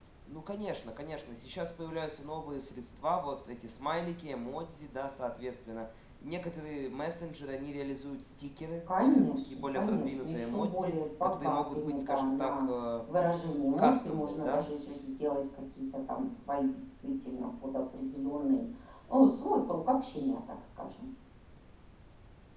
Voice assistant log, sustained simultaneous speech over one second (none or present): present